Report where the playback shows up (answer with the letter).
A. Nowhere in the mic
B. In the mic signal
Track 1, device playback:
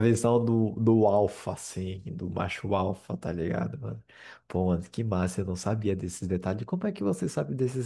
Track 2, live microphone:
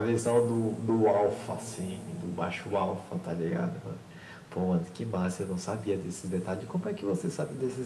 B